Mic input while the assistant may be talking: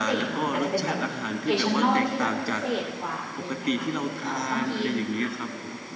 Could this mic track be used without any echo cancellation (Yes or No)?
No